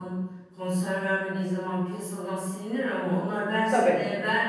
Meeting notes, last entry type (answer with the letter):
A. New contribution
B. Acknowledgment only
B